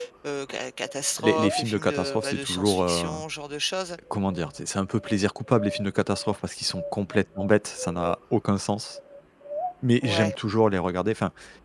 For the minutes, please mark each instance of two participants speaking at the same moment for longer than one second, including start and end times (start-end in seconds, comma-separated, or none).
1.2-3.1